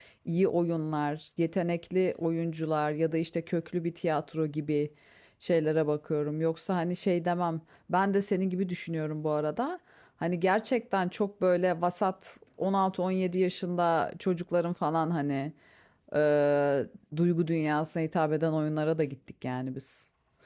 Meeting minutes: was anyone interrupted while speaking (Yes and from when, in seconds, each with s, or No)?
No